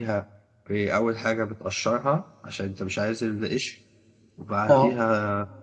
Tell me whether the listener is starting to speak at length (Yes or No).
No